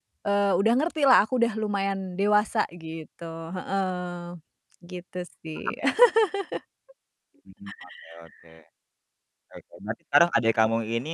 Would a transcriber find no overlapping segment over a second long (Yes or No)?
Yes